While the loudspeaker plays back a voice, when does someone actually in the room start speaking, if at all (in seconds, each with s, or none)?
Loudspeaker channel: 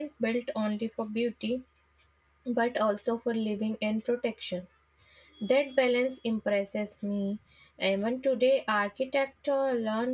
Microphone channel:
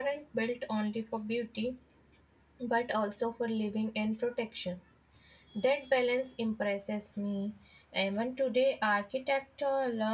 none